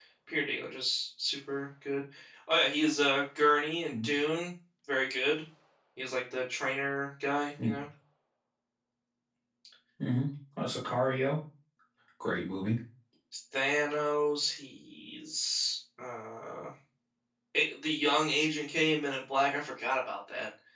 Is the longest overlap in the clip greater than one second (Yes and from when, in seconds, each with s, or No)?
No